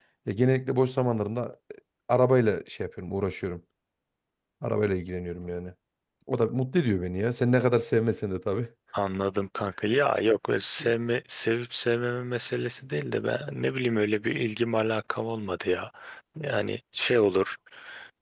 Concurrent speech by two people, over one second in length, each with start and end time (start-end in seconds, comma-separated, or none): none